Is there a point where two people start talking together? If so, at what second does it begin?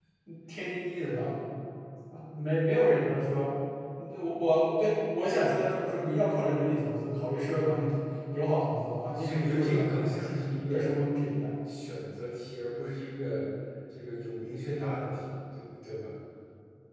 9.1 s

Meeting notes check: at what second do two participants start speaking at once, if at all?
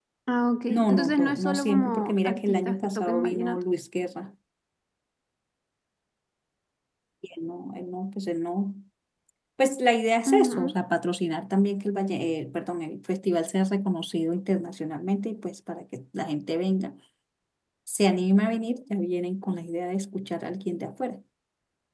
0.7 s

